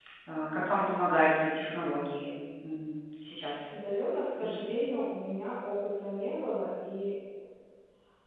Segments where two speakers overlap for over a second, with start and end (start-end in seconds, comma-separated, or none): none